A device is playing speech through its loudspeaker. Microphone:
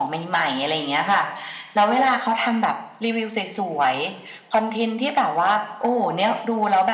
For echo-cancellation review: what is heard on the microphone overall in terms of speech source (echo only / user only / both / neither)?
echo only